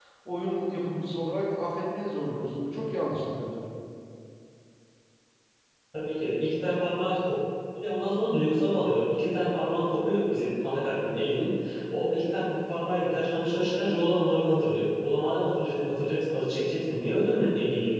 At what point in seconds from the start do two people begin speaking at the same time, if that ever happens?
none

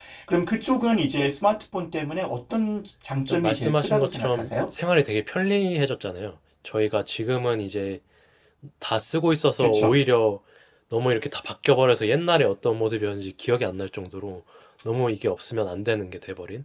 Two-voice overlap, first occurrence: 3.3 s

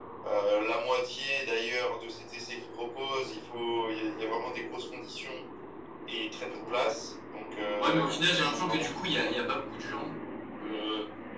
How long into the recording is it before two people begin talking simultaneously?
7.8 s

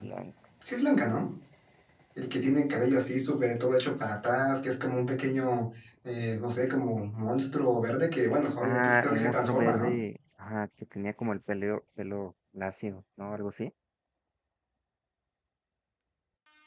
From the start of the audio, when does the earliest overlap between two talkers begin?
8.6 s

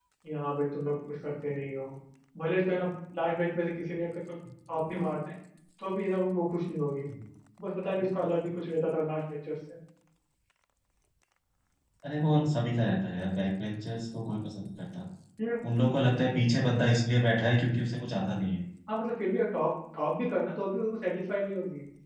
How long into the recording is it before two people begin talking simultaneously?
none

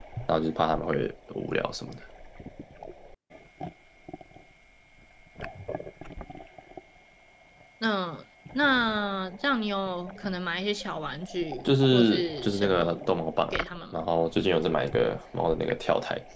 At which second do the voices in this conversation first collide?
11.6 s

